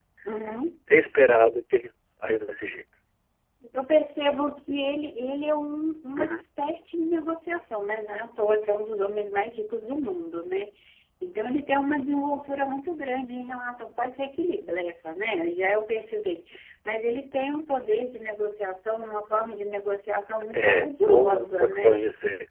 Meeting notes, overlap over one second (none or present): present